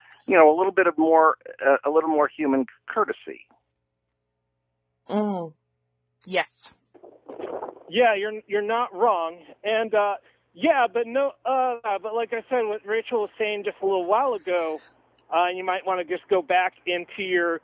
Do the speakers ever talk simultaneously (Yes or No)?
No